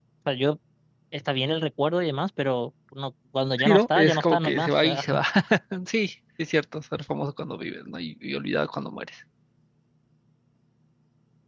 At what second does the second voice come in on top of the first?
3.6 s

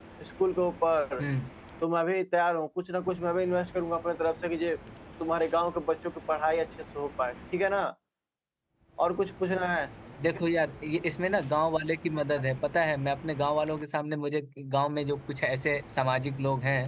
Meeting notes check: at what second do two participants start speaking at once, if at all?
none

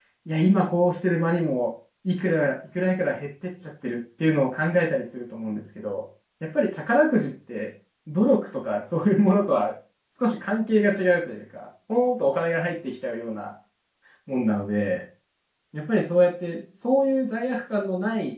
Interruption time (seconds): none

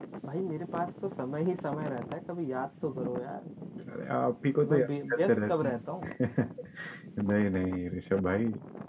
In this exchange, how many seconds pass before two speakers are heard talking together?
4.7 s

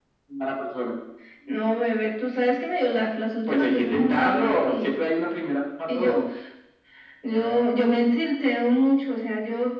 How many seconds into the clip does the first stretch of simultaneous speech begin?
3.5 s

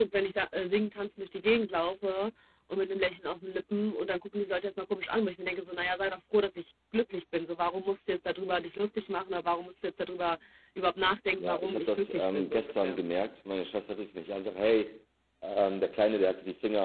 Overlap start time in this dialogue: 11.4 s

